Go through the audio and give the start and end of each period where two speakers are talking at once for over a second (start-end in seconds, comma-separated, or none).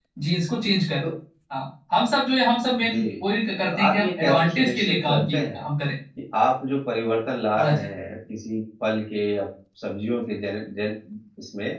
3.7-5.6